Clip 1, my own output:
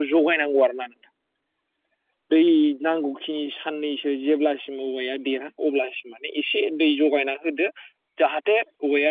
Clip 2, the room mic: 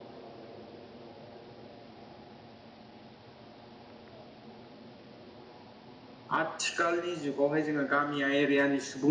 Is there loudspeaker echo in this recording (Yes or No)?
No